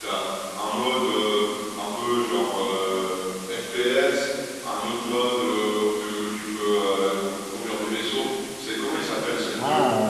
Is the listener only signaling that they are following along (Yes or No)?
No